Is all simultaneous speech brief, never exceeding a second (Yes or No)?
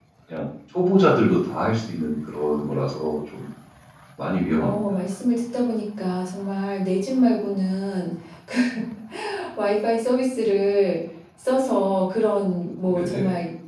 Yes